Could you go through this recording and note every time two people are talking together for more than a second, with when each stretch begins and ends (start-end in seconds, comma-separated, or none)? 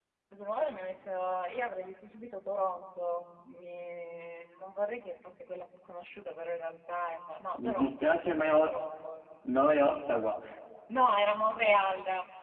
7.6-8.8